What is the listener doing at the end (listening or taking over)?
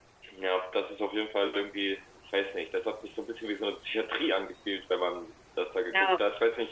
listening